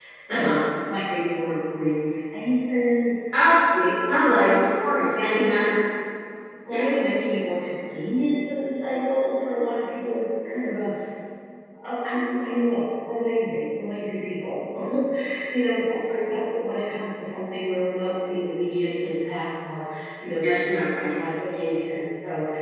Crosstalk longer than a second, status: present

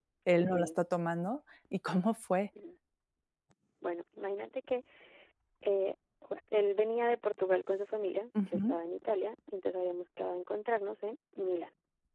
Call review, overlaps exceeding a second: none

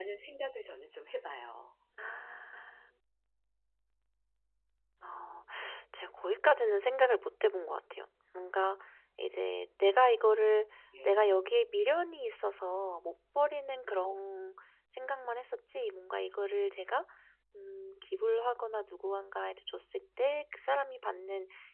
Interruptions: none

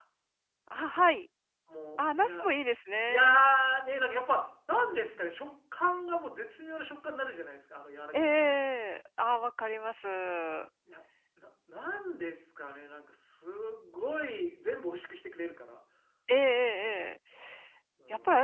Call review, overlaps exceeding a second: none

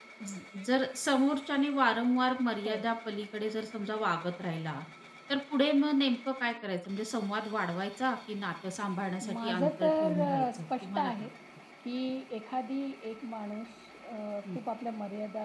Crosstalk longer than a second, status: present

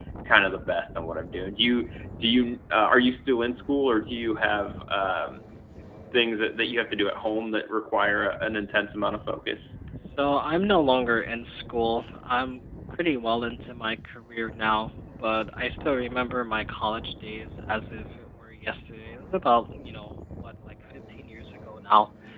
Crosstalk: none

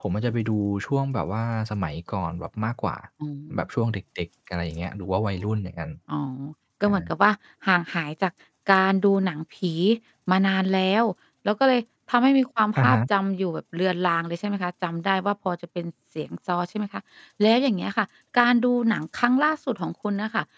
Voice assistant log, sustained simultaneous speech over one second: none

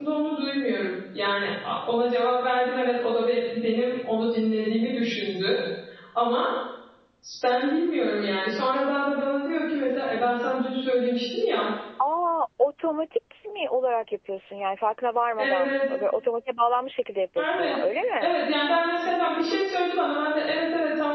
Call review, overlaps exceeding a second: none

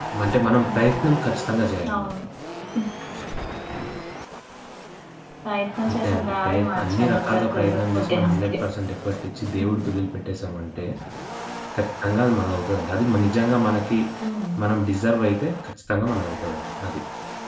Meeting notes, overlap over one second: present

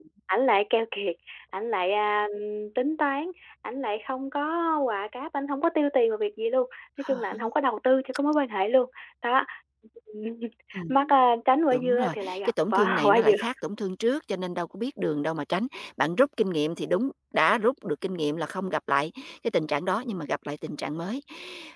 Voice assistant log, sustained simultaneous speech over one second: present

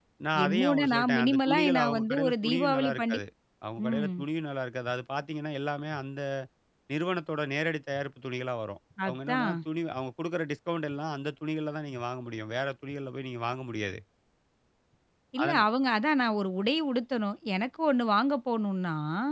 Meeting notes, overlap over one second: present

